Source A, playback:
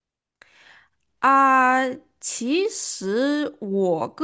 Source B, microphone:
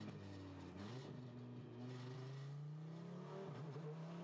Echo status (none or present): none